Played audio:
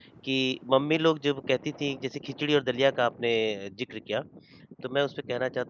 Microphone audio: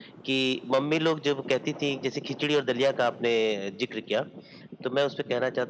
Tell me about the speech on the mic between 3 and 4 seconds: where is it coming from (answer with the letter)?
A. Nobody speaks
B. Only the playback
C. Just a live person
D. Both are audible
B